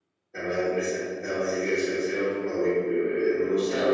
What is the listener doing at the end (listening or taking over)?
taking over